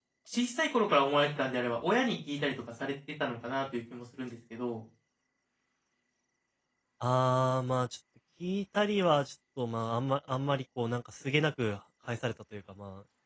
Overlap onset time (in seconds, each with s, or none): none